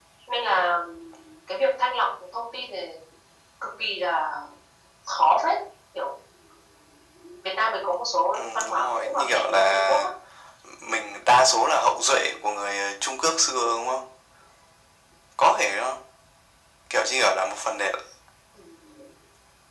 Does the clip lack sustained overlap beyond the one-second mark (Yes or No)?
No